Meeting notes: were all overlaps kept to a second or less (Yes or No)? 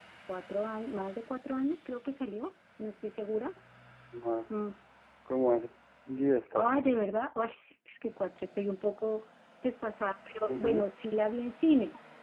Yes